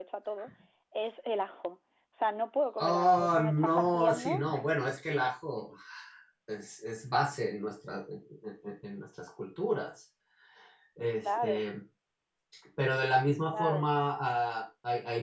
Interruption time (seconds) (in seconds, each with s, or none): 2.8 s